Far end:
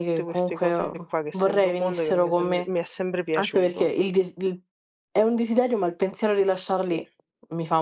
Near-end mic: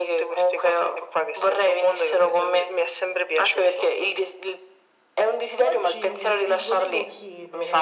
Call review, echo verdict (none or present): present